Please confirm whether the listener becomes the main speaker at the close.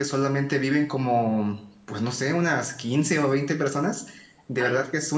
No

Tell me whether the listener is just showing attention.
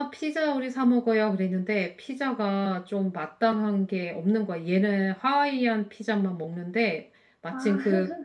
Yes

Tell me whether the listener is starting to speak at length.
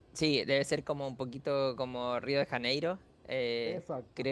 No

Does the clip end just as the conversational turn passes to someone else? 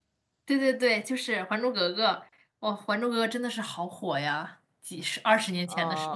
Yes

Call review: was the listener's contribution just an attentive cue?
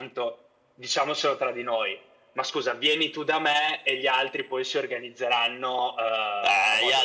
No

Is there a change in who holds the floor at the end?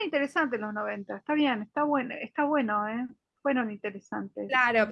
Yes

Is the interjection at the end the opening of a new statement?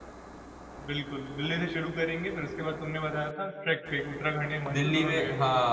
Yes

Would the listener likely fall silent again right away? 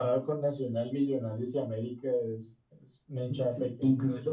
No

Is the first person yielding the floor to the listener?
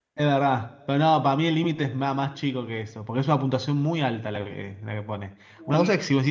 No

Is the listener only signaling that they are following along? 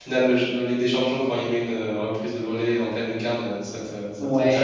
No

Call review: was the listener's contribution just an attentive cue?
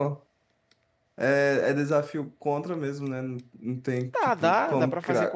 No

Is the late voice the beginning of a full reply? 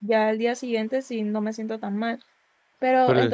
No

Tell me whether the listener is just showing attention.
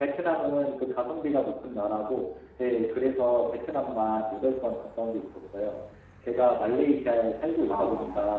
Yes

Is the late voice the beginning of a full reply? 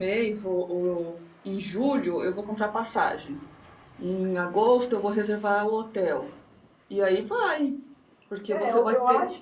Yes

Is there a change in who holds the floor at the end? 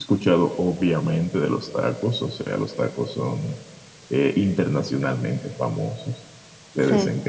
No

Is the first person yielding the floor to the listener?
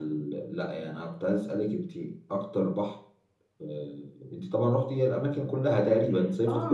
Yes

